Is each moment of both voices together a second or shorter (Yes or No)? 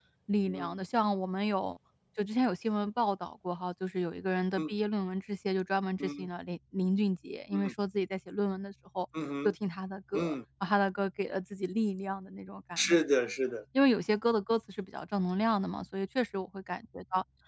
Yes